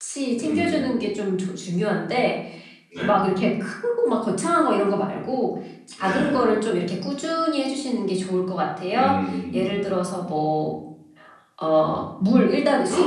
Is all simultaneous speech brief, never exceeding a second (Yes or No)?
Yes